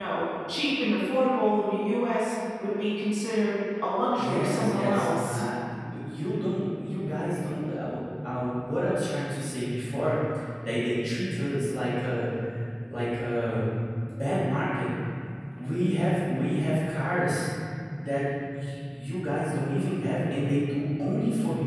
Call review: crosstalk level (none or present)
present